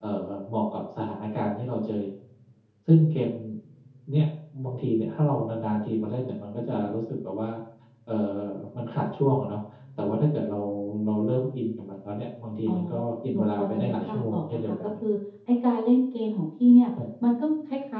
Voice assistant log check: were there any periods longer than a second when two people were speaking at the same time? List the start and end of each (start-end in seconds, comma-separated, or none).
13.3-14.7